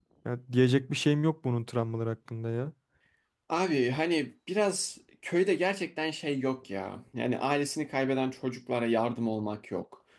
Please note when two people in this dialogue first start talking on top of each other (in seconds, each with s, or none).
none